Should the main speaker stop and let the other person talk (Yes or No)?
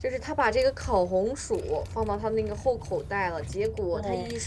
No